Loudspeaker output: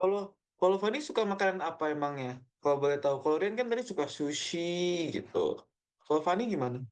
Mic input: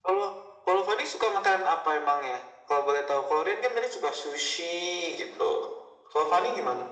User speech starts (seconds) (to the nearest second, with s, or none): none